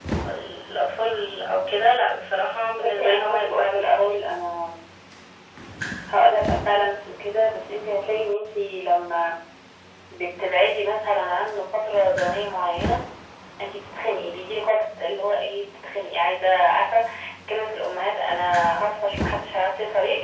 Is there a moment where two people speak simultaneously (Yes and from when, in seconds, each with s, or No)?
Yes, from 2.8 s